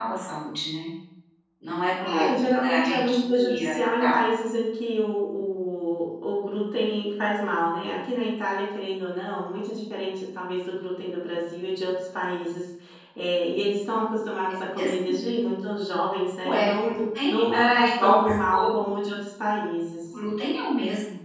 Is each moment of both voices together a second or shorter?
No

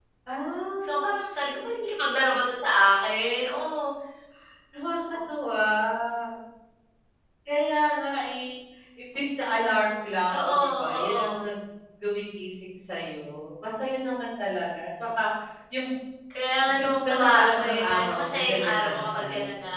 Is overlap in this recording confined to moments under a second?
No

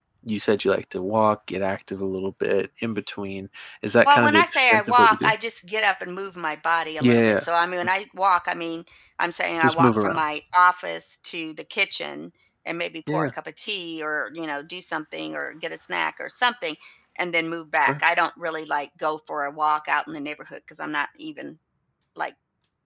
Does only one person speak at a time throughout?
No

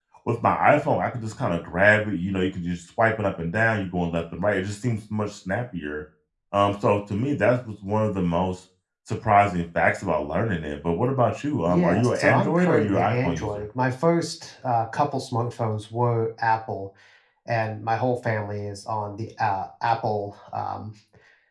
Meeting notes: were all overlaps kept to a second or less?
No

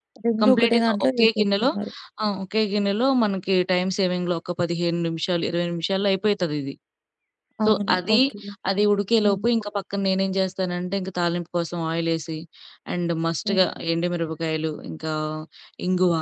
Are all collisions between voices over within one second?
No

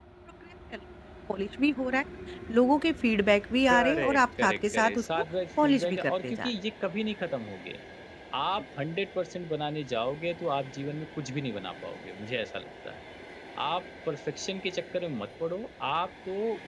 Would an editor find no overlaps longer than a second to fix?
No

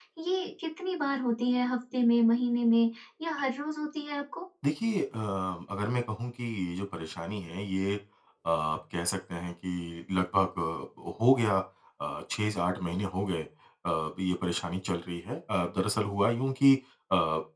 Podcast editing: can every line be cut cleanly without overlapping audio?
Yes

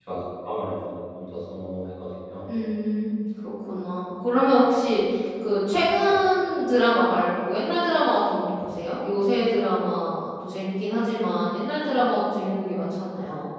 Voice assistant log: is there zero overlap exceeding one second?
Yes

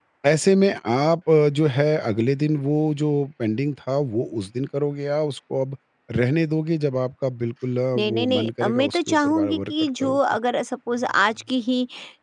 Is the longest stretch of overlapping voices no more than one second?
No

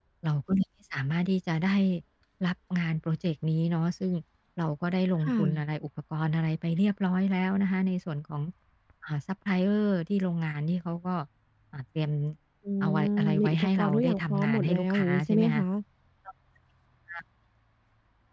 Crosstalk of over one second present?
Yes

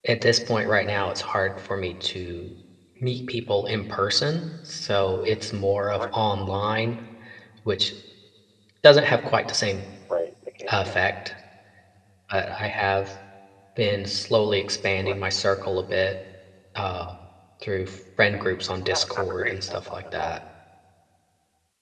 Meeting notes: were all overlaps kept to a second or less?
No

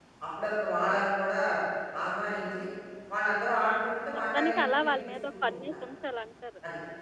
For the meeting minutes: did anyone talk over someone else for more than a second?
Yes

